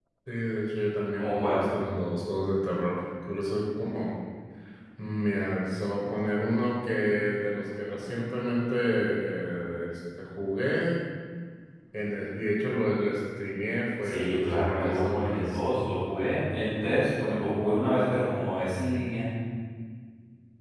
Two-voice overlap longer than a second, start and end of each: 14.0-15.6

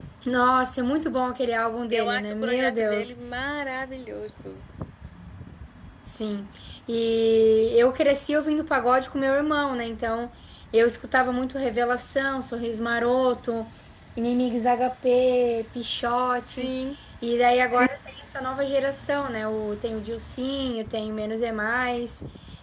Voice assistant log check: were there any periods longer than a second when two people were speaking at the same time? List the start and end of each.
1.9-3.1

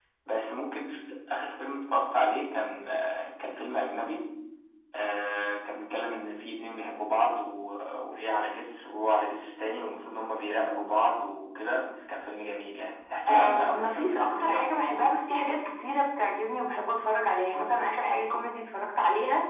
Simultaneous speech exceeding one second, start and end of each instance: 13.3-14.9

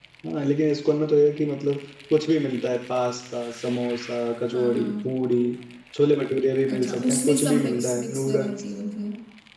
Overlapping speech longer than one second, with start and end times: 6.7-8.6

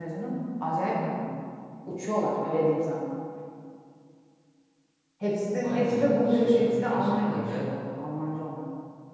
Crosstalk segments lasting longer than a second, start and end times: 5.6-7.7

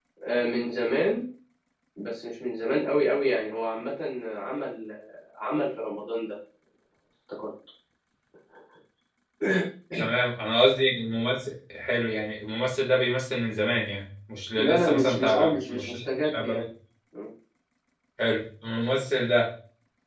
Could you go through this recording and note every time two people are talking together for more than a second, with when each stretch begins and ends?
14.6-16.6

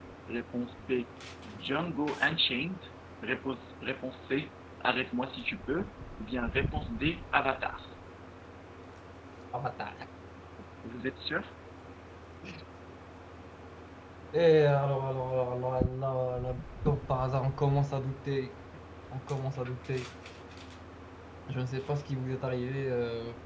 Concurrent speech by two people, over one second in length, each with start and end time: none

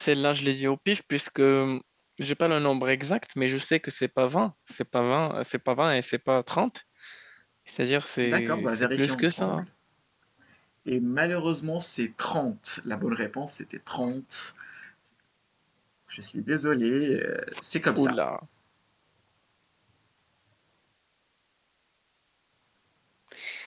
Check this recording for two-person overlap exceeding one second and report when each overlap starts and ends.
8.2-9.7

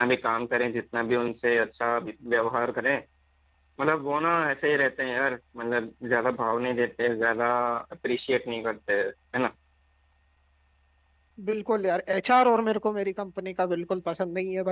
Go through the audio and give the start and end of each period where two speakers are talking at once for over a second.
none

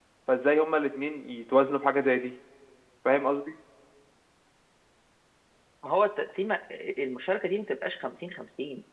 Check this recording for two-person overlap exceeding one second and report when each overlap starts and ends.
none

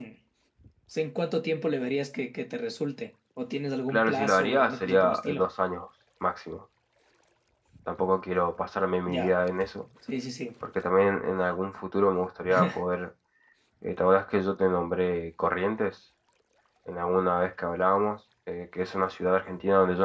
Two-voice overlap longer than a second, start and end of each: 3.9-5.4

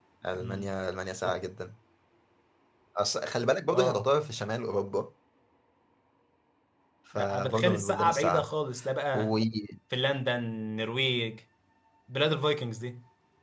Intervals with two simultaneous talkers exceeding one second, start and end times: 7.2-8.5

